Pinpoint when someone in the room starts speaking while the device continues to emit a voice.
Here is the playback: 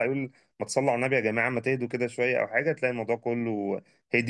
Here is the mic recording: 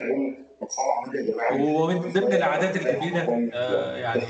1.5 s

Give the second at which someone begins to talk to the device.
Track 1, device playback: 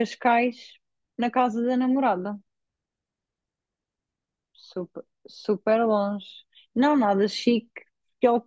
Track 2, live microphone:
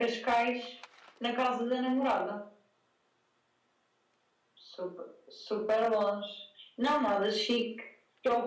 none

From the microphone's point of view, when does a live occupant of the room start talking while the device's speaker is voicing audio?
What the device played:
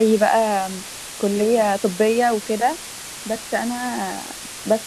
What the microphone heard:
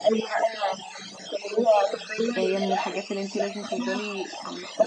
2.4 s

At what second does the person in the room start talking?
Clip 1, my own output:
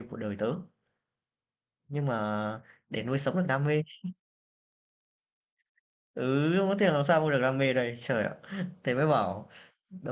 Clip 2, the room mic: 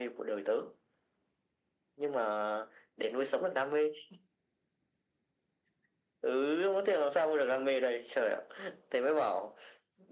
none

